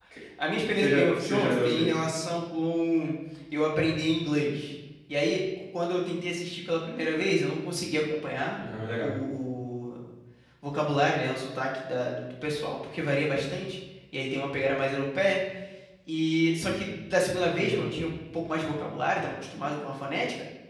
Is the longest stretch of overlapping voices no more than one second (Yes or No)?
No